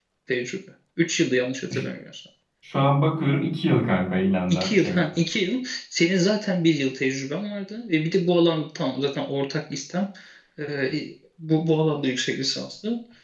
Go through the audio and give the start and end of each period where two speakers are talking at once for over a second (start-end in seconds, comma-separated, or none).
none